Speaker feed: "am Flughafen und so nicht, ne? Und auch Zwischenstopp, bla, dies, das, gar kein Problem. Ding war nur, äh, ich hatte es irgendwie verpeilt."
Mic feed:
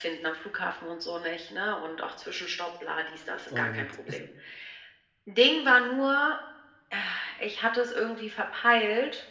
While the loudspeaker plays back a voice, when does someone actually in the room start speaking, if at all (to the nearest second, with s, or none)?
3 s